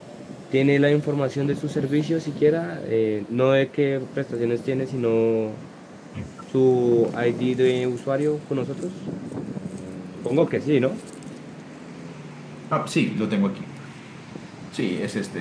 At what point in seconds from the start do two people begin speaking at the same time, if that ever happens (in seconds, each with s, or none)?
none